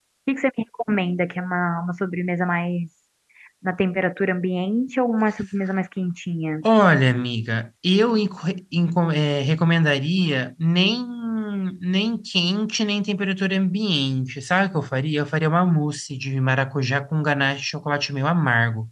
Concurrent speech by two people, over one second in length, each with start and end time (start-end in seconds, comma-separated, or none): none